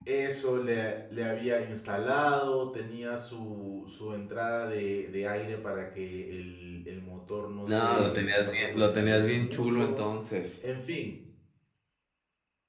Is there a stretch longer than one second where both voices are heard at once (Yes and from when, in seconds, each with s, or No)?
Yes, from 7.7 s